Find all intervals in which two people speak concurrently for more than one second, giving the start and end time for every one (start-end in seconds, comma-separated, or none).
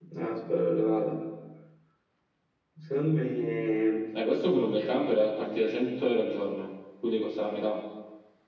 none